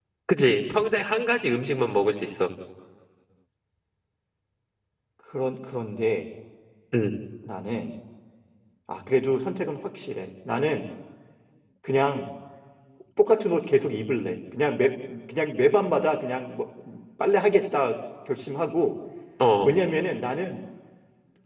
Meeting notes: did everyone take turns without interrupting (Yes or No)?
Yes